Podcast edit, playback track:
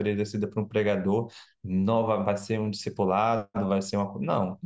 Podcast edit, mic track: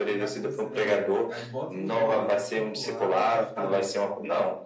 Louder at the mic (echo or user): echo